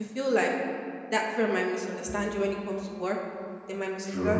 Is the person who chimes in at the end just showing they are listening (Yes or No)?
Yes